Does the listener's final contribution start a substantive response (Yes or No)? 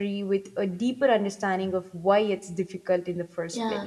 Yes